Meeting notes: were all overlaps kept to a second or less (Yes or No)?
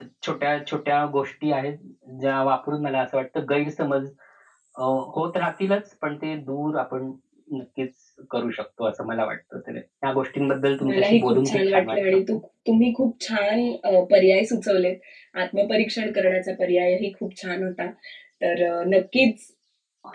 No